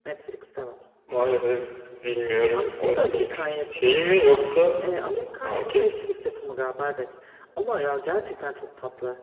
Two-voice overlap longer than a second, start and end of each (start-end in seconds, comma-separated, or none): 2.5-4.0